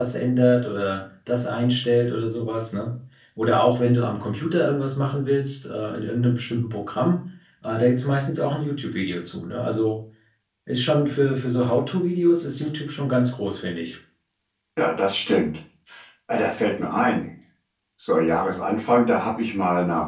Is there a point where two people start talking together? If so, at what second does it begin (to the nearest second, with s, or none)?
none